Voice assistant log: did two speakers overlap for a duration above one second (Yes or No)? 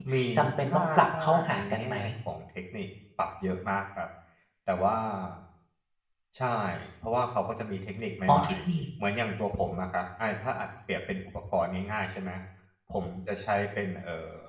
Yes